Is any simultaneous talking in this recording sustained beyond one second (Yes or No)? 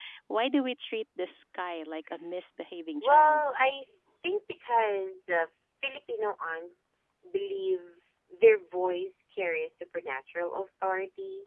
No